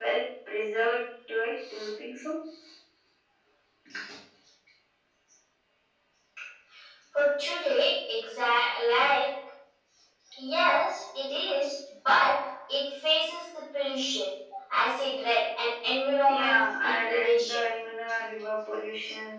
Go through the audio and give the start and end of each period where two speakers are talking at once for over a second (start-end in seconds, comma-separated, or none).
16.2-17.7